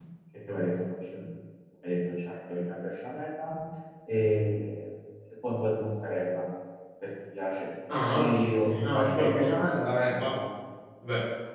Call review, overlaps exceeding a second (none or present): present